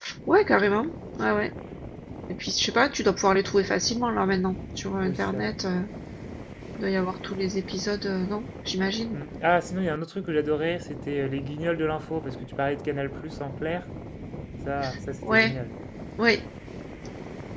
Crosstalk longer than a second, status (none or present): none